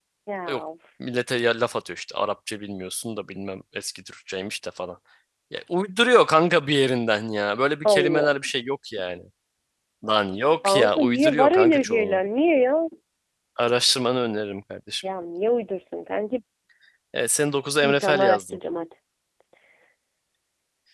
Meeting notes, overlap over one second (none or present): present